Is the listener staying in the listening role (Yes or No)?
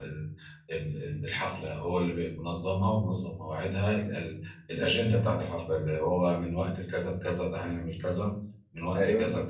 No